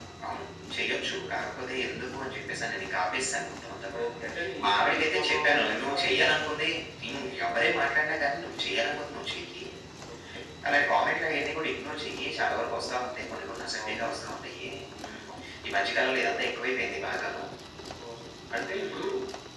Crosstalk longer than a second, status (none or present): present